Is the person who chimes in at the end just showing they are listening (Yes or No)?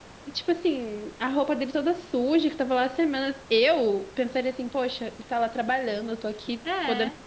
Yes